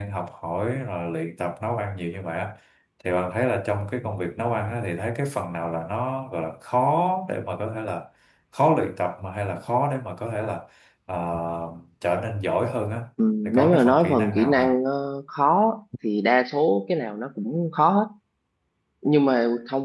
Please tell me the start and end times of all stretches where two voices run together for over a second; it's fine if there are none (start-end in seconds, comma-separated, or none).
13.4-14.7